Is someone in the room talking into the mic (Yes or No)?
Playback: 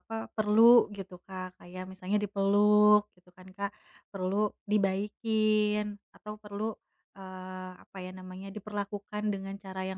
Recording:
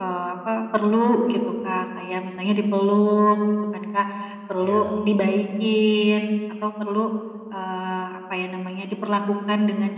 Yes